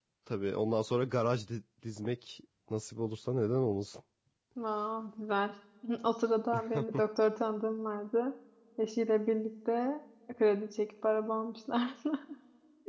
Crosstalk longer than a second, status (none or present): none